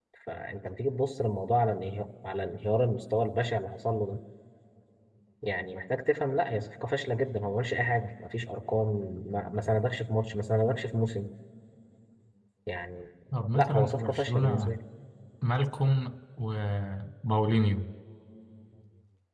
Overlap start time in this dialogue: 13.5 s

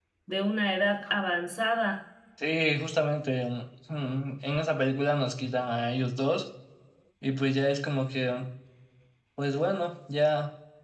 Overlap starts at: none

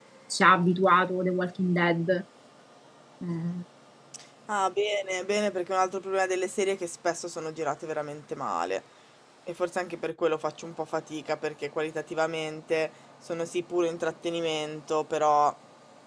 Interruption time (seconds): none

